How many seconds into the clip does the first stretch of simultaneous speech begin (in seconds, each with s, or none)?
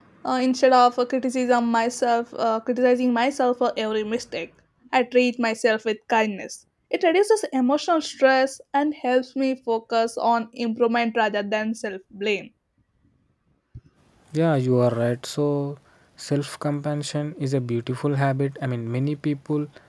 none